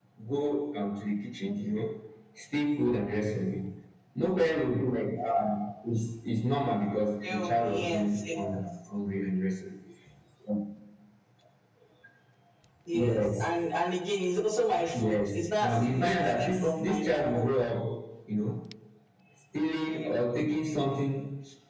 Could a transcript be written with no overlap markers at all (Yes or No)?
No